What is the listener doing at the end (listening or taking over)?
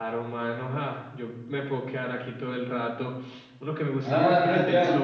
taking over